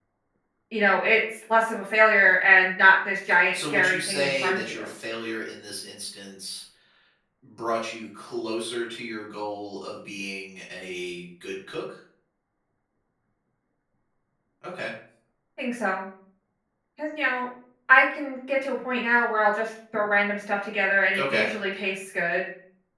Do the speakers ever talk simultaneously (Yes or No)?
Yes